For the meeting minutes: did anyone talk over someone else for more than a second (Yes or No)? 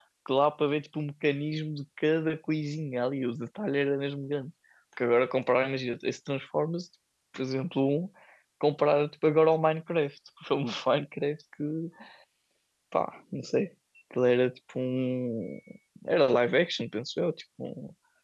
No